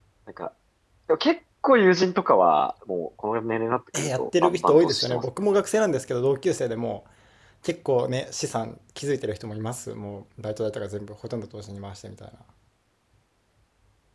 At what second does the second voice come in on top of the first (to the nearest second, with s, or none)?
4 s